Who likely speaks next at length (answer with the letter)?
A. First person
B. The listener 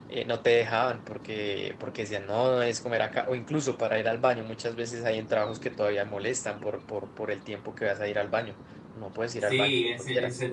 B